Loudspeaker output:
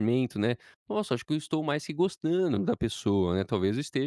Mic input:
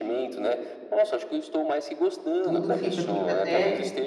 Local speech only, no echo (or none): Tudo fica fica até